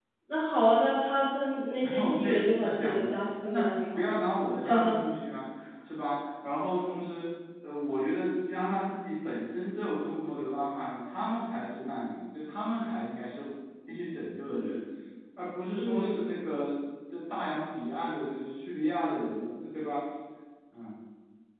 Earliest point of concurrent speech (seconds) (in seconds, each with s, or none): 1.8 s